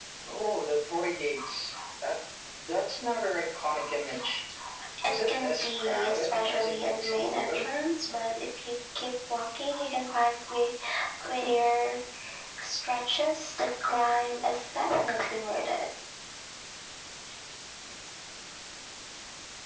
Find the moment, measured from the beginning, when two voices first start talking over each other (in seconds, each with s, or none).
5.0 s